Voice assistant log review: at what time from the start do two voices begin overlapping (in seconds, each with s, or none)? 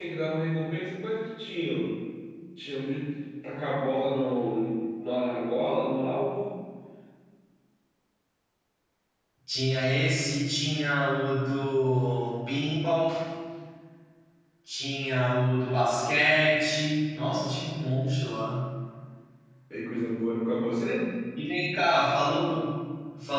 none